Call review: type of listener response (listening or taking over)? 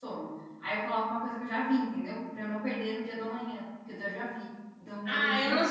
taking over